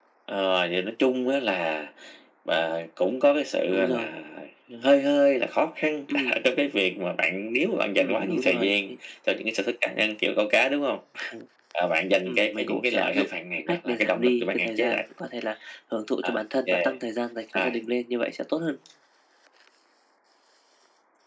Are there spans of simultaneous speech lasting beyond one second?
Yes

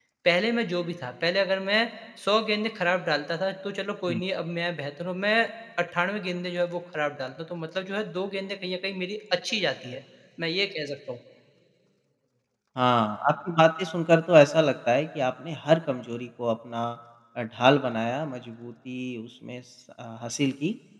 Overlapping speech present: No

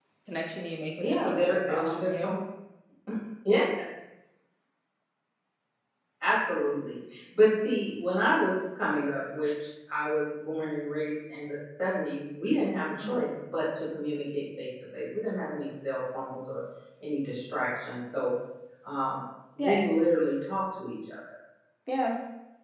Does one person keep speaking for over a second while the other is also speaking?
Yes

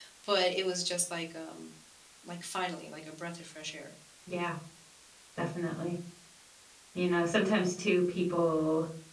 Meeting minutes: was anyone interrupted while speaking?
No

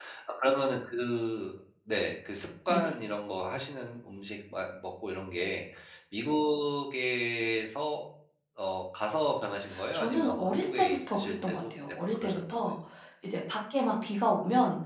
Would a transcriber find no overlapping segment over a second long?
No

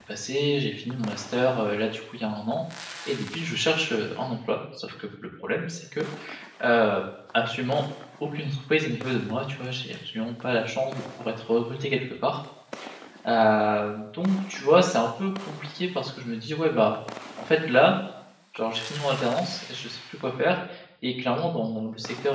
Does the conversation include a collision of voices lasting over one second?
No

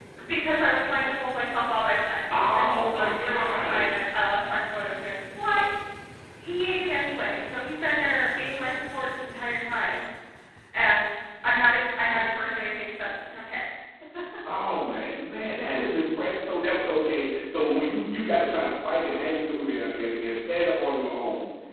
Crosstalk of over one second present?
Yes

